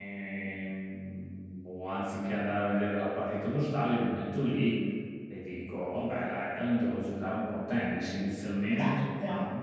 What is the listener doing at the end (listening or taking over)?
listening